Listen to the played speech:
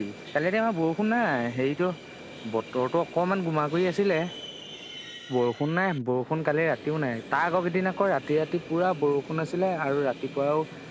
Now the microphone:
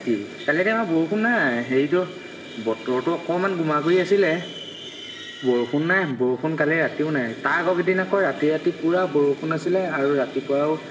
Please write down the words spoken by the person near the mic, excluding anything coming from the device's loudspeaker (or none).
none